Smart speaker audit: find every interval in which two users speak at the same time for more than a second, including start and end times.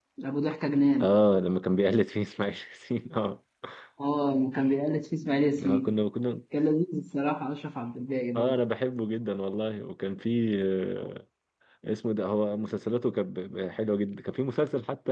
none

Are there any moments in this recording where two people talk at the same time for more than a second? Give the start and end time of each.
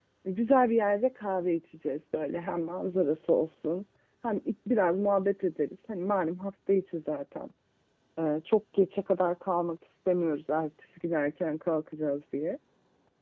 none

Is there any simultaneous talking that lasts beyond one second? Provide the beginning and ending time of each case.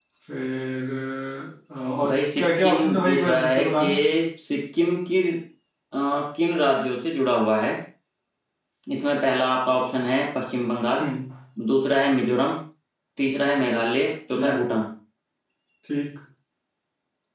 2.0-4.0

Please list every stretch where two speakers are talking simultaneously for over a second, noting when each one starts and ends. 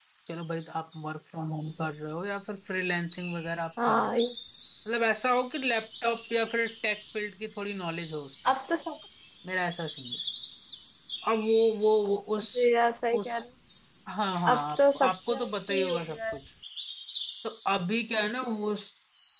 14.6-16.2

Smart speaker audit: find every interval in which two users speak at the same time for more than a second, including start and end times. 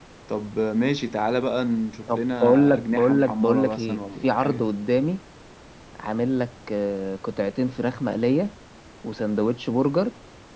2.1-4.6

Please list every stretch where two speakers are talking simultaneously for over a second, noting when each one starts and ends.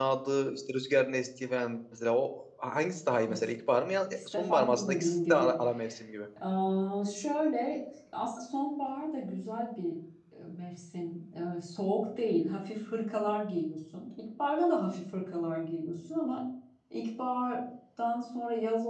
4.2-5.5

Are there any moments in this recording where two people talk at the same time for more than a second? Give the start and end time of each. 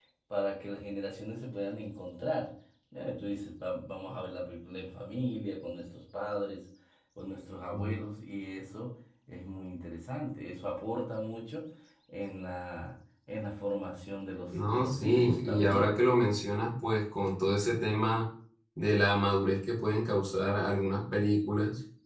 14.7-15.9

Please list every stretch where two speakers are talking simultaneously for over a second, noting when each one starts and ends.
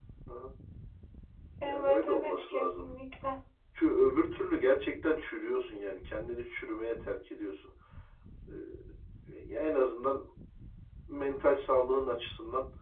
1.6-2.9

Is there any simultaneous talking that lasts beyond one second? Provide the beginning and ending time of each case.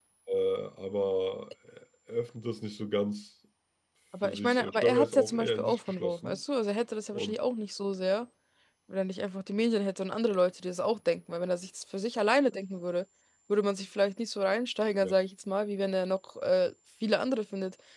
4.2-6.4

